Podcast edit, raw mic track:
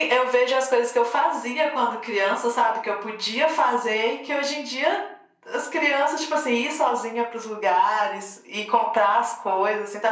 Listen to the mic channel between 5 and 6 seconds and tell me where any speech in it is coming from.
echo only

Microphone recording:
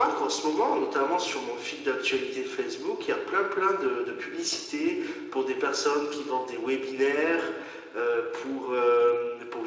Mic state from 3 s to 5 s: echo only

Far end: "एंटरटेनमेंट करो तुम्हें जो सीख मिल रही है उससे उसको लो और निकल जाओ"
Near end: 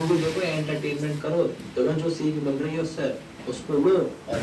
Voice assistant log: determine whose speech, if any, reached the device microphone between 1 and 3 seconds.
echo only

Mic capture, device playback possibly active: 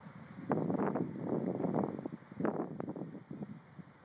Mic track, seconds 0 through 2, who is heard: neither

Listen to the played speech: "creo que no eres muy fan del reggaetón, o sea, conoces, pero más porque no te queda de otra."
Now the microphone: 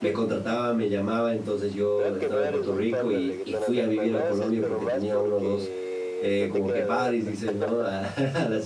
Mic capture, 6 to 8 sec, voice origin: both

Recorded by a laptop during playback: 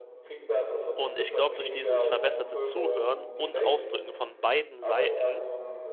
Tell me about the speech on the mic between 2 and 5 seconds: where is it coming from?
both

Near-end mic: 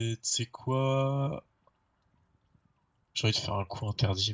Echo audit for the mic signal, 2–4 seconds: user only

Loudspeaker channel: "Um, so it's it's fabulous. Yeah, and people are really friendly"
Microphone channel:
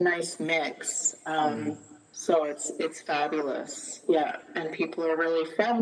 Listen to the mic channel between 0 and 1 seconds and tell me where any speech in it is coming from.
echo only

